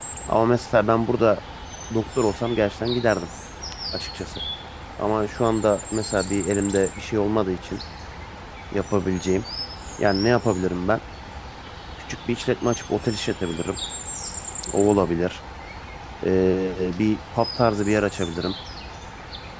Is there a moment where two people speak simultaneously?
No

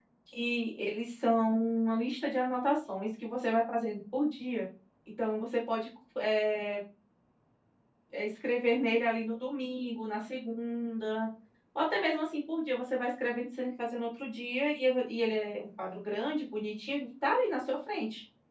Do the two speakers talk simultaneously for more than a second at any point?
No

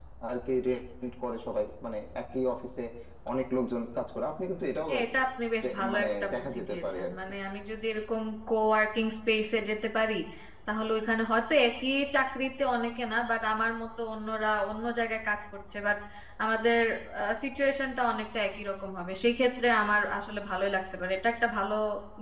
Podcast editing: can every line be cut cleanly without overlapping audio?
No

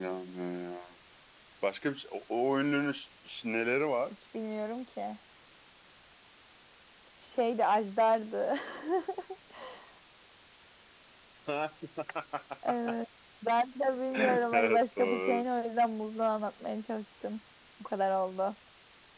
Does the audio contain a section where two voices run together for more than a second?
Yes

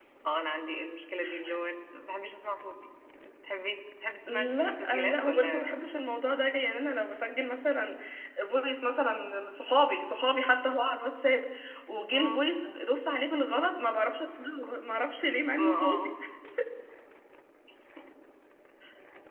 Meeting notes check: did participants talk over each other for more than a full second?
Yes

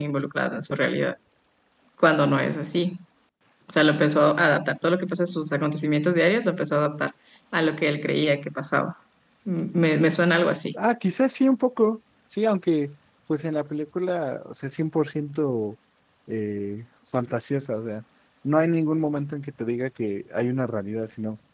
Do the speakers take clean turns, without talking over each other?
Yes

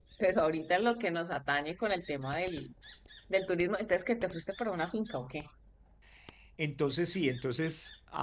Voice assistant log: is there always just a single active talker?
Yes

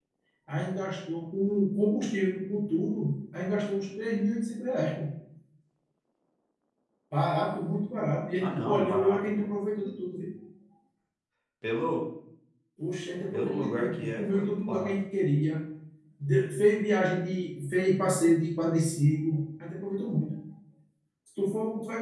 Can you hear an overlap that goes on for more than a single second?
Yes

